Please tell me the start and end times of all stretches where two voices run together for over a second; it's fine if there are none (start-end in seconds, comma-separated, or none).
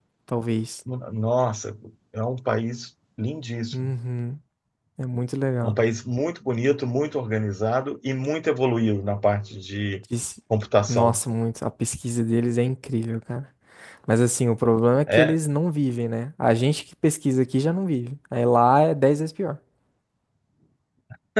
none